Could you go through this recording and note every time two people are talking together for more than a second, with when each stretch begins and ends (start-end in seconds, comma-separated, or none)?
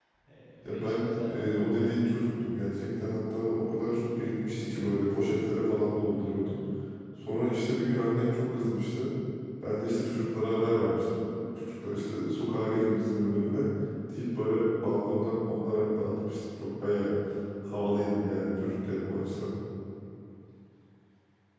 0.7-2.0